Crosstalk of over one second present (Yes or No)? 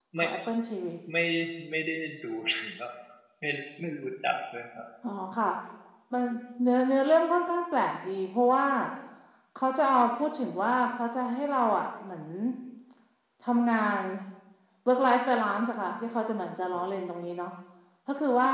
No